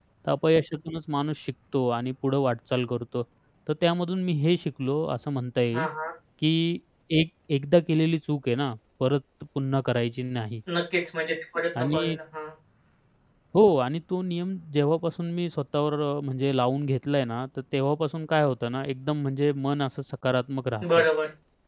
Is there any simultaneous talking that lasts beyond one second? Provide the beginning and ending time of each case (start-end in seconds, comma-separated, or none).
none